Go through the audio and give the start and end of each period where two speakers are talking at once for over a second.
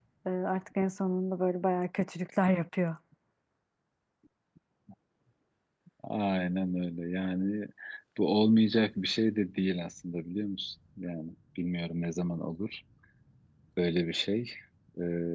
none

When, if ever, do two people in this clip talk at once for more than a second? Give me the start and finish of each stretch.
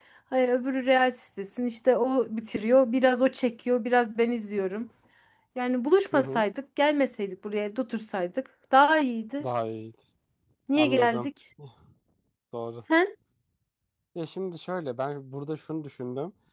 none

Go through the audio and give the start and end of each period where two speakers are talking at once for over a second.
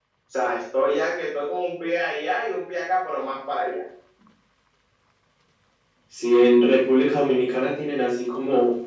none

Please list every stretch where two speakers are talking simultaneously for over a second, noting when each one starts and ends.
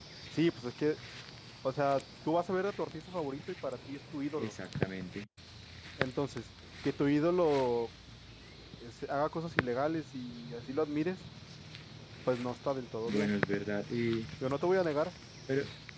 none

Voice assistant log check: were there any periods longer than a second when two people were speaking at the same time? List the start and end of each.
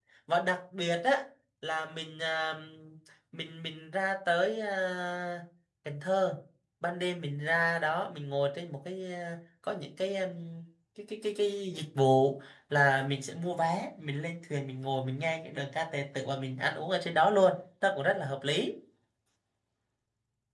none

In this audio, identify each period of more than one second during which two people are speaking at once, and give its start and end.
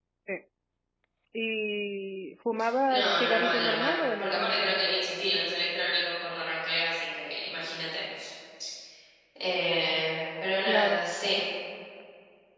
2.9-4.7

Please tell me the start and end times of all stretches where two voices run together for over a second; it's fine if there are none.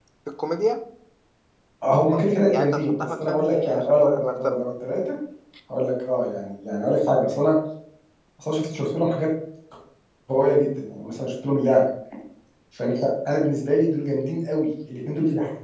2.5-4.6

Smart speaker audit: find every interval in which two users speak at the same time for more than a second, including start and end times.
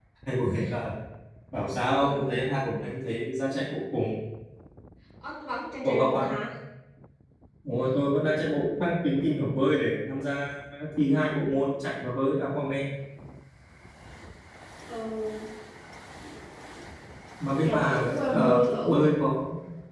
17.5-18.9

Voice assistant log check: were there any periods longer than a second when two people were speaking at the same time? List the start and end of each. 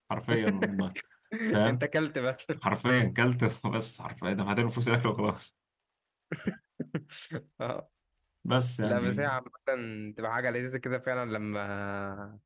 none

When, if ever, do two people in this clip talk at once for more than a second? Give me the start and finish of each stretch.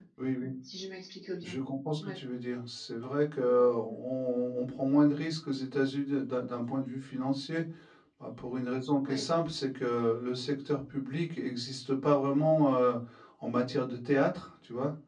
none

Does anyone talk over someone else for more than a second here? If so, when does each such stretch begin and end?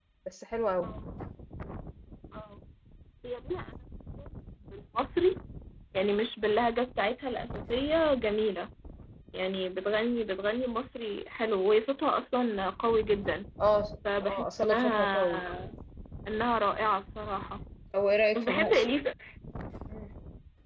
14.2-15.4

